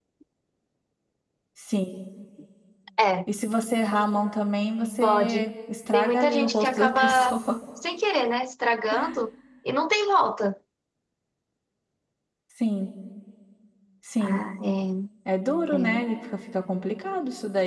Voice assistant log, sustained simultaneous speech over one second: present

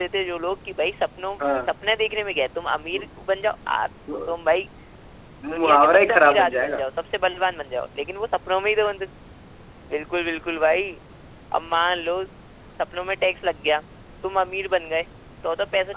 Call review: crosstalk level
present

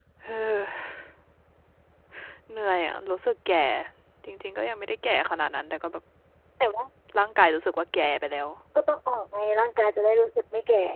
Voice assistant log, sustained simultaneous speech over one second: none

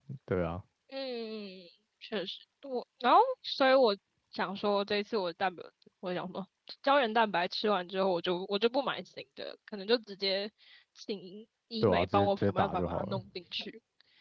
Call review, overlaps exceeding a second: present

